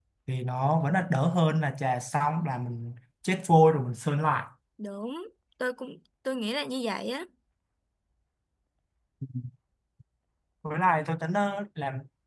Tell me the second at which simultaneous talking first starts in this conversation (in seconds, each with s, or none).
none